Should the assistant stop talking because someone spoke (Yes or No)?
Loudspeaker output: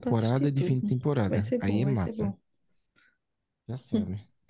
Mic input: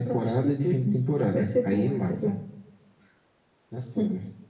No